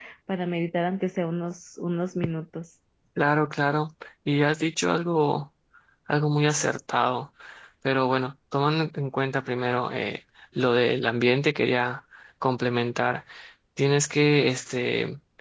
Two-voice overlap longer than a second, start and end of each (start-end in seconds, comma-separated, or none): none